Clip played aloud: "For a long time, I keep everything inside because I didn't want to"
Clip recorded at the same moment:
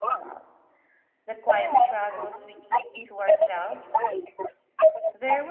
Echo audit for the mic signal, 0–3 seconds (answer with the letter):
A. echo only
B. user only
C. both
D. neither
C